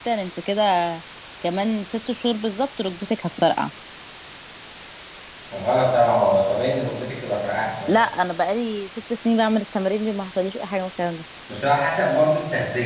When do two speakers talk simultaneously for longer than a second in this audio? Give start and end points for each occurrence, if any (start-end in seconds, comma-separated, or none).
none